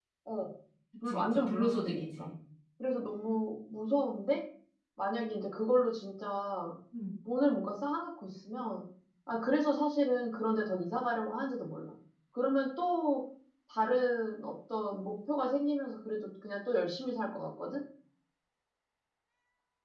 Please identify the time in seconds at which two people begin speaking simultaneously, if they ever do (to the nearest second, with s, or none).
1 s